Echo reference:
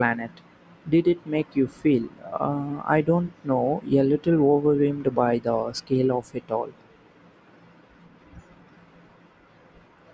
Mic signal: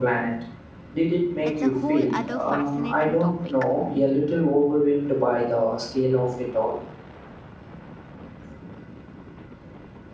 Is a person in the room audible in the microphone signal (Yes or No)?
Yes